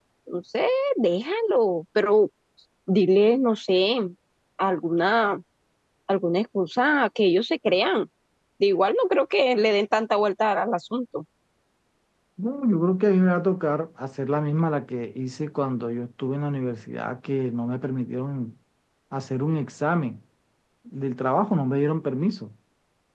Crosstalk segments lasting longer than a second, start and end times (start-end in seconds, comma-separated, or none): none